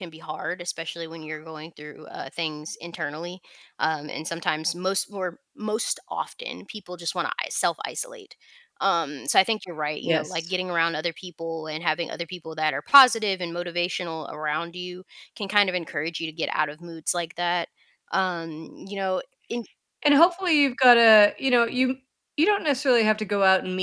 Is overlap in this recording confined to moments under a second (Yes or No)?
Yes